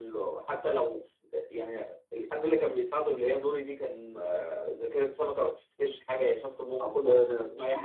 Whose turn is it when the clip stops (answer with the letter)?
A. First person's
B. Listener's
A